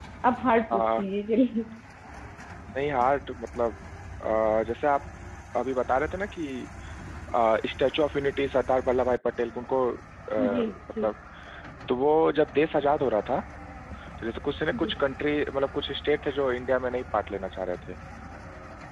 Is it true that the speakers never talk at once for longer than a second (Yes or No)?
Yes